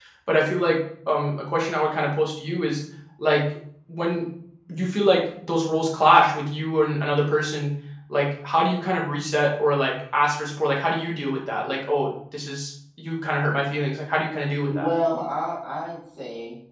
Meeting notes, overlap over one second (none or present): none